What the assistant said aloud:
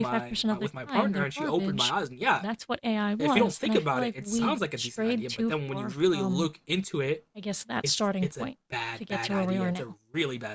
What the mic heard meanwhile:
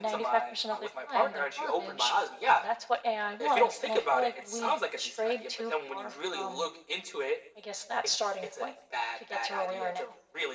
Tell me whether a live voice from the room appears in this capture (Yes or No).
No